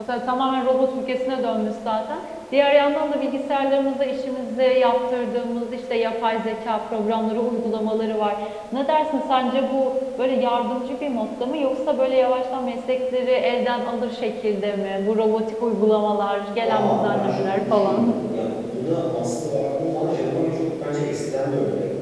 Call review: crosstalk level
present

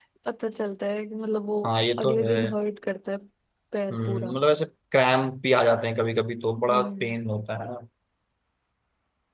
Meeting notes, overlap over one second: none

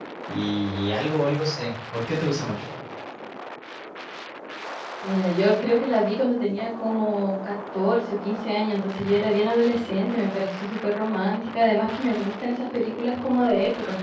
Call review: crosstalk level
none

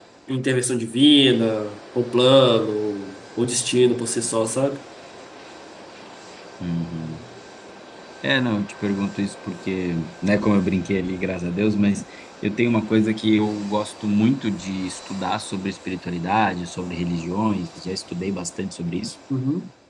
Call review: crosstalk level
none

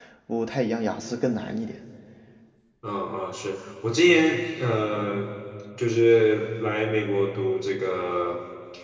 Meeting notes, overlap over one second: none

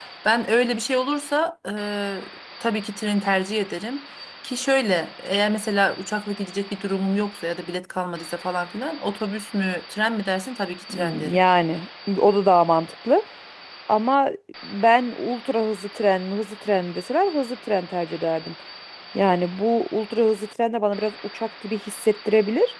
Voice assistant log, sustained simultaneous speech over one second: none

